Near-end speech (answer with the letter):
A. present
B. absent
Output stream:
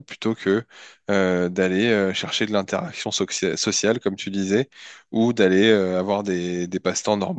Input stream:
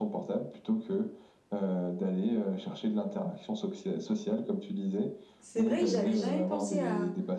A